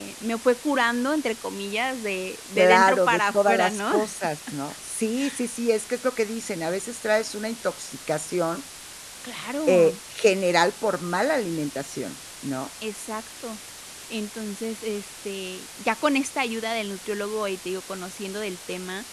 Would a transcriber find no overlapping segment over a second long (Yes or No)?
No